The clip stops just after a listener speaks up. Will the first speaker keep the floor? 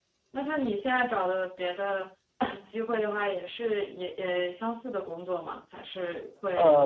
No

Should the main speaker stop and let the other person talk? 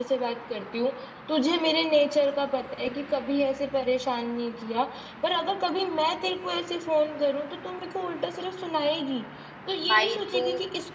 No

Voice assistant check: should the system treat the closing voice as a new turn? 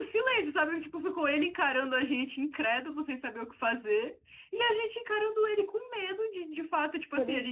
No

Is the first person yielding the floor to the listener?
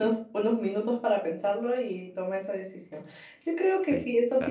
No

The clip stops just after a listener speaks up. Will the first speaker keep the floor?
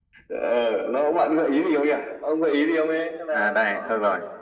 No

